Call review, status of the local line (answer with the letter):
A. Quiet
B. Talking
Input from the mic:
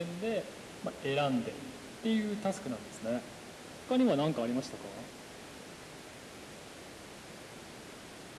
A